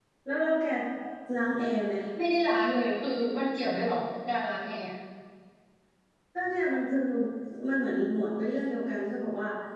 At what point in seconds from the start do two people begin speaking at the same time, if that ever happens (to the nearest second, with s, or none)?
none